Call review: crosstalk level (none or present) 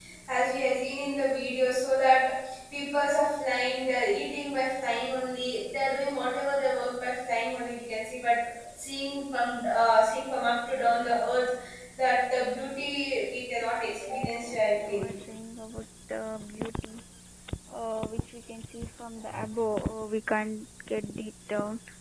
present